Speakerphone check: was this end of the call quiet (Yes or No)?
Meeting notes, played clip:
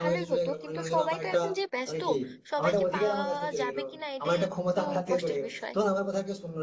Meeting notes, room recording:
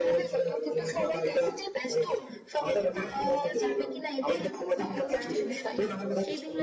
No